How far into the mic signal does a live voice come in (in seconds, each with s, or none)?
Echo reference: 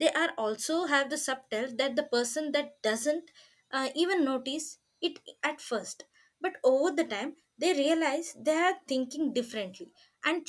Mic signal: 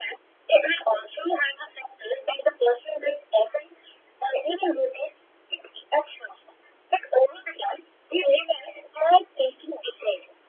none